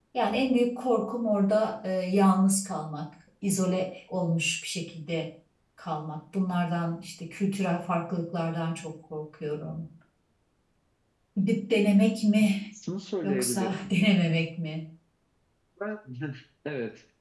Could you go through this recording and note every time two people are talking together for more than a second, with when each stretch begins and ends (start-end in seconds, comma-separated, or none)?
none